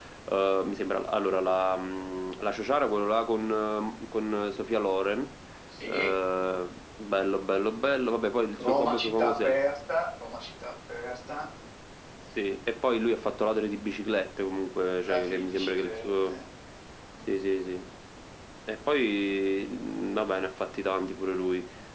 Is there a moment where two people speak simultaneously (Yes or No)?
Yes